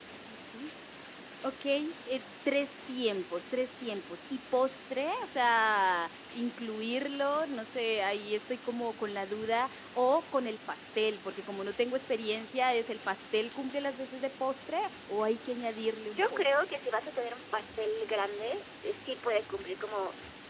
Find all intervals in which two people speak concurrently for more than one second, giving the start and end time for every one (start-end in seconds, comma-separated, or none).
none